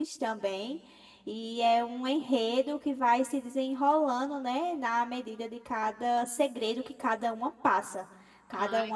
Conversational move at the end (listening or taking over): listening